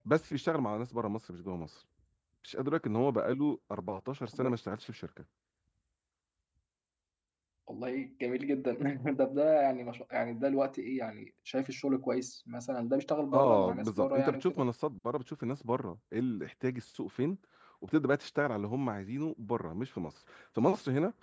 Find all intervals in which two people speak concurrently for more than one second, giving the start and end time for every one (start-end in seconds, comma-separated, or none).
13.3-14.6